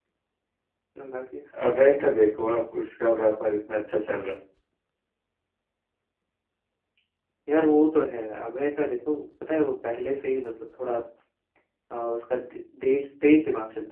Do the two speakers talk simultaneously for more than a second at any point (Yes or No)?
No